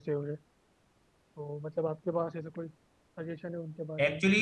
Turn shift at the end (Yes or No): Yes